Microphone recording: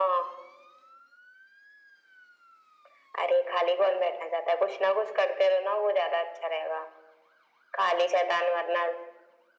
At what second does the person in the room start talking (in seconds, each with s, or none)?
none